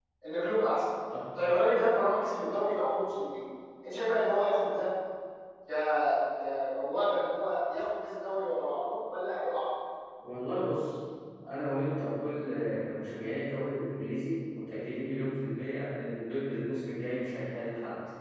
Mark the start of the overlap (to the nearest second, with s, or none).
none